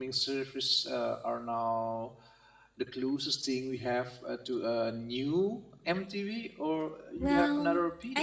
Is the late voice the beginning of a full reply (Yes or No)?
Yes